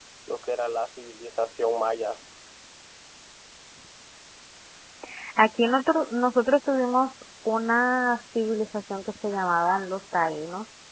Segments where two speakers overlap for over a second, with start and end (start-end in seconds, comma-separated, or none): none